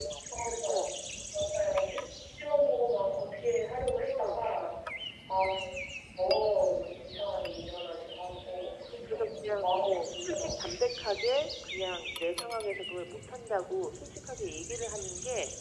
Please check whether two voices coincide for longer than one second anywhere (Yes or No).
Yes